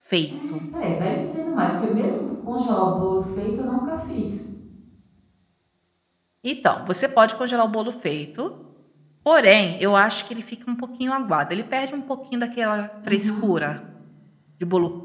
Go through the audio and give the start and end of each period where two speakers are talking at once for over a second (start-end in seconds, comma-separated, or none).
none